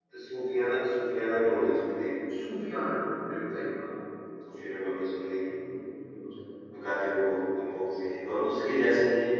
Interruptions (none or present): none